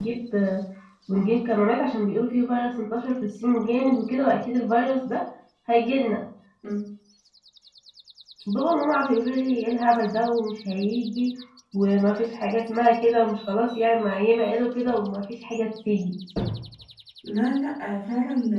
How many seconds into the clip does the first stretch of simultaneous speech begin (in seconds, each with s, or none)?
none